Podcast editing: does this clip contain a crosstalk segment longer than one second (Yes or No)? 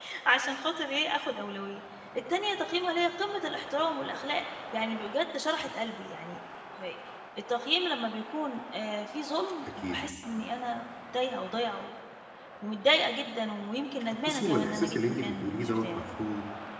Yes